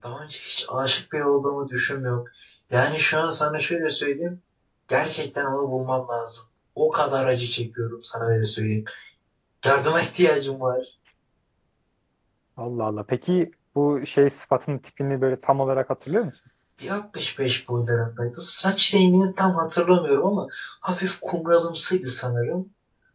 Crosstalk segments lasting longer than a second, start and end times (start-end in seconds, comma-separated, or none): none